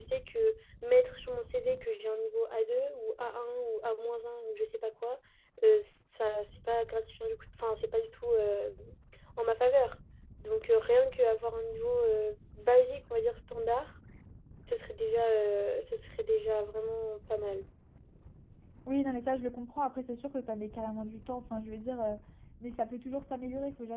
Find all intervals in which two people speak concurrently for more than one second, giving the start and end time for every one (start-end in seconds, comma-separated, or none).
none